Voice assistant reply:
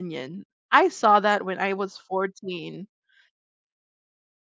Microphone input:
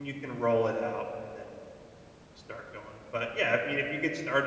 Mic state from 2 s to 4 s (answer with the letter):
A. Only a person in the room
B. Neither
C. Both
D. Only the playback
A